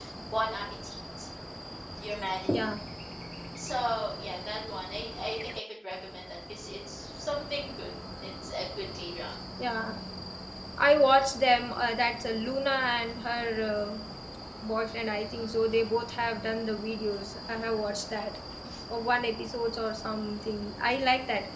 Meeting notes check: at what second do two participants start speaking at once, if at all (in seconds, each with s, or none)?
none